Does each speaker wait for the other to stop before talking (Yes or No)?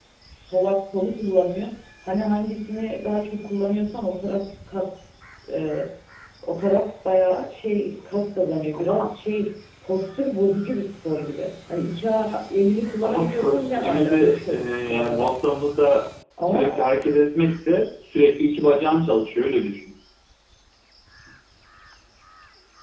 No